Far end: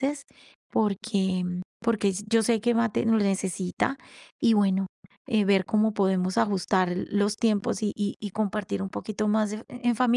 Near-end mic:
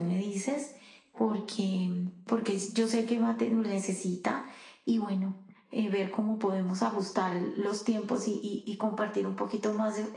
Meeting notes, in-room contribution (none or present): none